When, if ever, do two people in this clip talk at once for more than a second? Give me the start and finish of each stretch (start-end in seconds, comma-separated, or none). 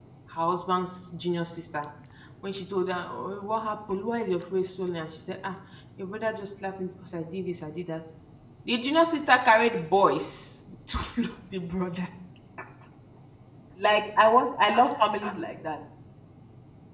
none